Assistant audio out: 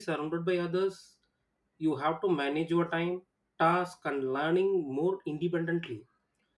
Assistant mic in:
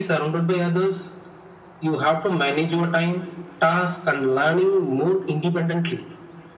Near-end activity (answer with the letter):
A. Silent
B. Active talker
A